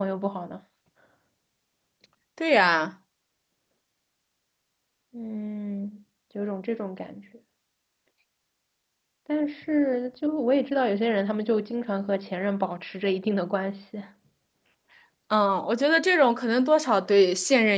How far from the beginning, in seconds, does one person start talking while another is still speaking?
none

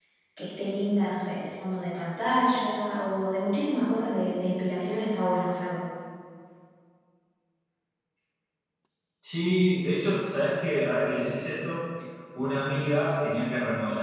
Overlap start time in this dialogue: none

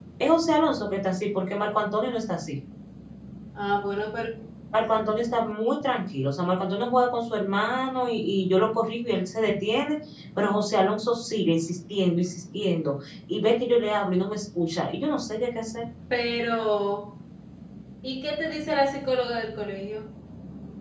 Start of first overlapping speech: none

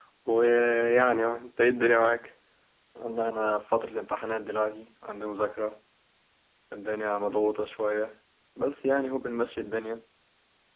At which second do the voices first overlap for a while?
none

